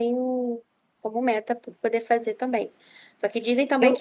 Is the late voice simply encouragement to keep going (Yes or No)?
Yes